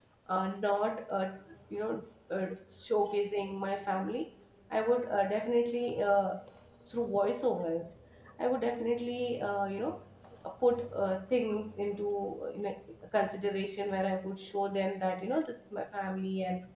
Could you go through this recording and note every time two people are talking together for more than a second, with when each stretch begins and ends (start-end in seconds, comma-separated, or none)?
none